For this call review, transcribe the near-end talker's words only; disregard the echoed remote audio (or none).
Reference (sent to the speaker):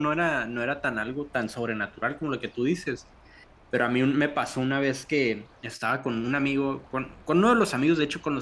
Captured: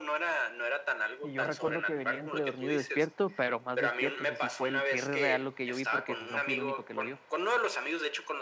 Y yo recuerdo que venía entre dormido y despierto, pero más despierto, o sea, sí fue el cierre real lo que yo vi porque no fui el único que lo vio.